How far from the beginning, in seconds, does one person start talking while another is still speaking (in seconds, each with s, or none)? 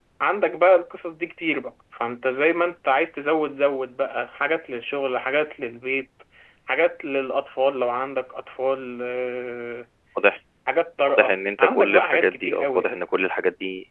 11.2 s